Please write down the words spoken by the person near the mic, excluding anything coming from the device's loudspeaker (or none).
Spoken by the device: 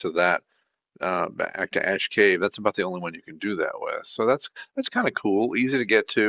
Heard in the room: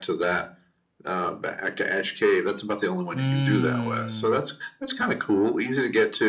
mm,